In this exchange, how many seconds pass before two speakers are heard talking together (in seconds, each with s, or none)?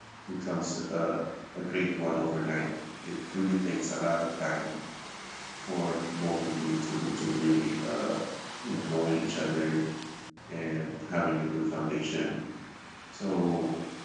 none